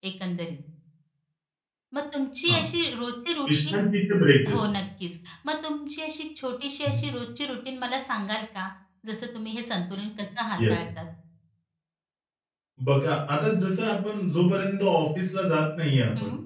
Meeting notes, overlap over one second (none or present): none